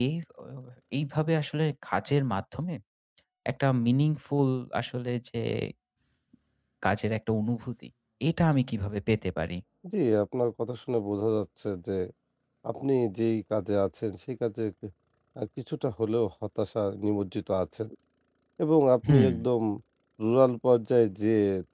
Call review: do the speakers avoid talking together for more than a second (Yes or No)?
Yes